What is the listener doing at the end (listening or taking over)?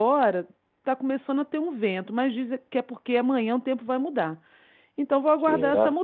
listening